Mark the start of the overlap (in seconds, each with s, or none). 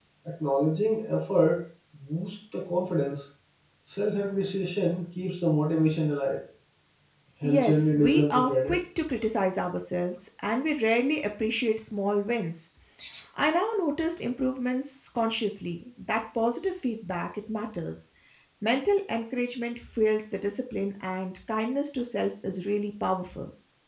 7.4 s